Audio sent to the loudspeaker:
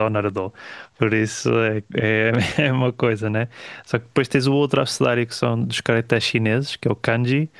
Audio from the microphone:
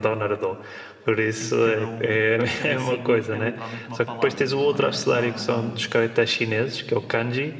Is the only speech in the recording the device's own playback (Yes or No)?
No